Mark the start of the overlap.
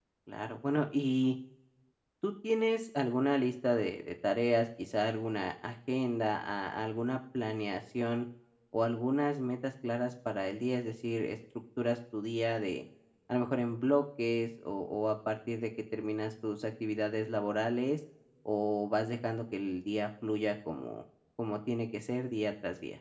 none

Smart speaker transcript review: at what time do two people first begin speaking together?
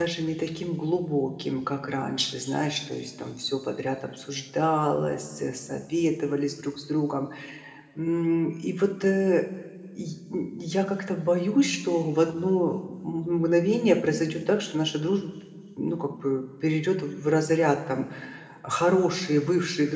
none

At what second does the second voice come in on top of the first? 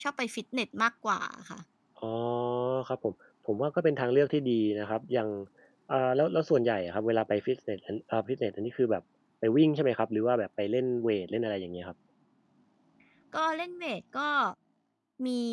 none

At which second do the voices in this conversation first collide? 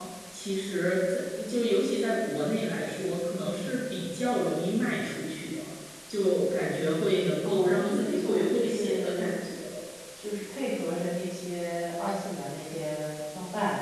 7.5 s

